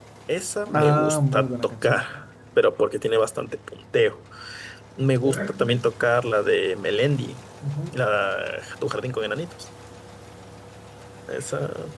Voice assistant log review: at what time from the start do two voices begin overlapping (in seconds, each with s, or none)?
0.7 s